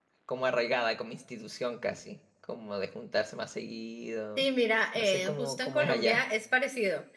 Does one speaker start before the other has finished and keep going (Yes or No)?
Yes